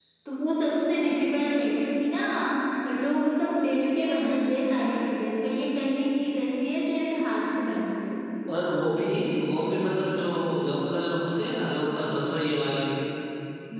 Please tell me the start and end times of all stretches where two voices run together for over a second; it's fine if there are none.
none

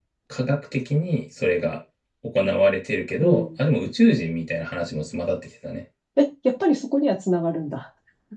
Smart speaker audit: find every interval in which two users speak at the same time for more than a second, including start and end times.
none

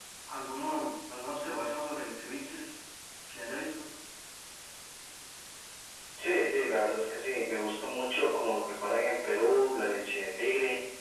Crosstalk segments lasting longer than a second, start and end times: none

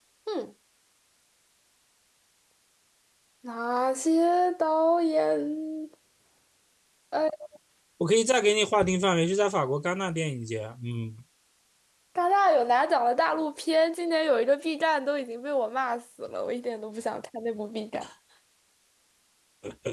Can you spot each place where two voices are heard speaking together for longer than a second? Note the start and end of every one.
none

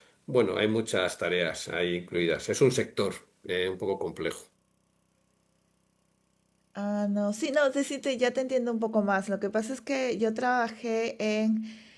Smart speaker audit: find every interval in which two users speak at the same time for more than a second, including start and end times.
none

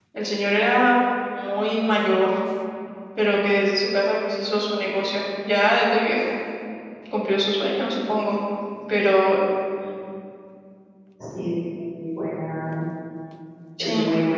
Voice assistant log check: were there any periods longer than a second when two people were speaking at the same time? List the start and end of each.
none

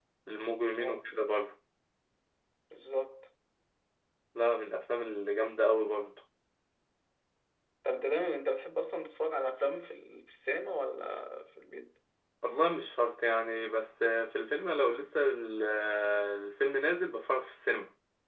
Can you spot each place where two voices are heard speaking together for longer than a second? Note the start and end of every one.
none

